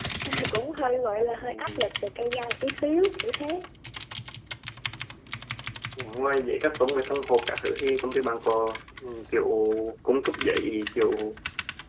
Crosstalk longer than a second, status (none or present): none